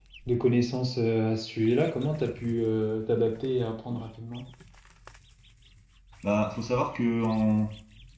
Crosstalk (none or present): none